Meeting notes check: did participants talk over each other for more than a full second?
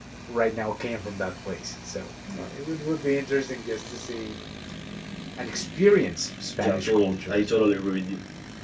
Yes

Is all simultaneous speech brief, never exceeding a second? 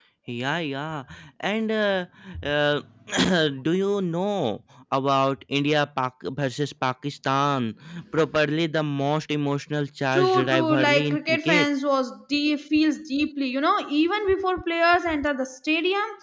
No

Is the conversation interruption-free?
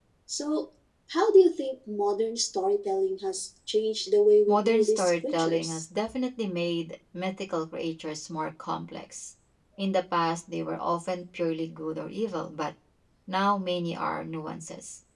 No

